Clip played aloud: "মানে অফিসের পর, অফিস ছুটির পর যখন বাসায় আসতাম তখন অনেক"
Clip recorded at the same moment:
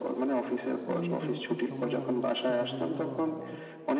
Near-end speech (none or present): present